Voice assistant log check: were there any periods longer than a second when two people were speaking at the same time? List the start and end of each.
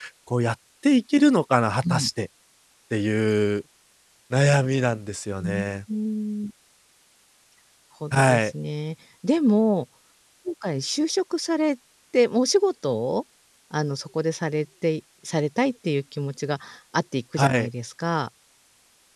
none

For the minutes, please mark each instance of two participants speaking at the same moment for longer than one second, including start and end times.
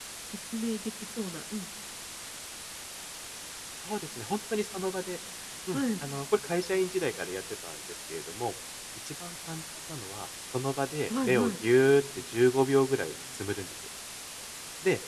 none

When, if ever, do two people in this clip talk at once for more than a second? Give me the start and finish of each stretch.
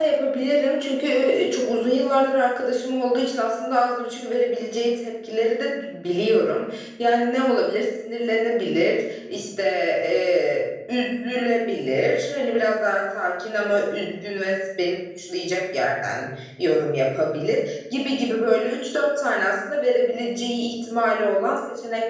none

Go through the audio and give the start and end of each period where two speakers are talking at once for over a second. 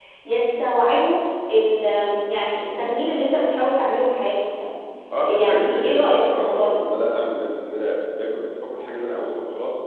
5.2-6.8

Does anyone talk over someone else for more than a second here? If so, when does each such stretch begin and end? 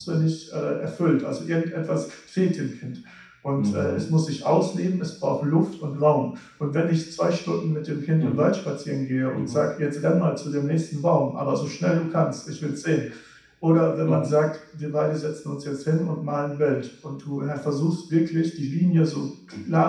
none

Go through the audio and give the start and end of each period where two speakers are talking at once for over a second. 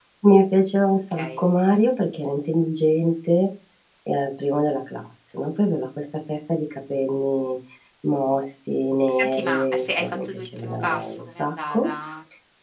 9.1-11.9

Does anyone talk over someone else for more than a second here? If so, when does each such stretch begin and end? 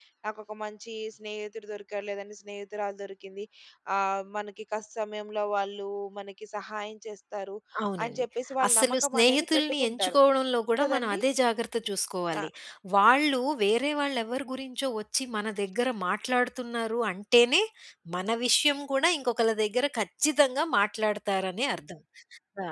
8.7-10.2

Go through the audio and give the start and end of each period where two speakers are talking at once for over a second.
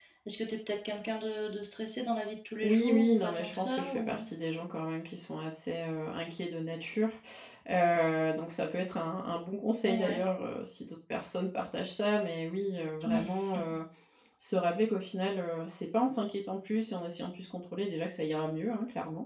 2.6-4.2

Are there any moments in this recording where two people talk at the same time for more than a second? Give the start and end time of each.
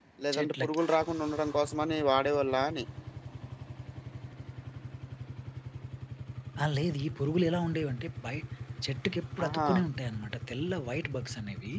none

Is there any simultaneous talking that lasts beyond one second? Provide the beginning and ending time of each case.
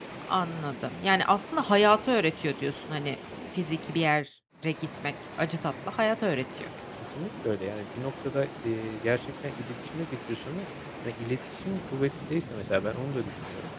none

